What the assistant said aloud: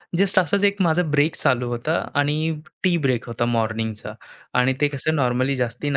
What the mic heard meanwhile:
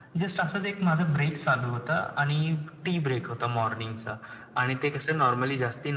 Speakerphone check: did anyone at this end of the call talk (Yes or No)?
No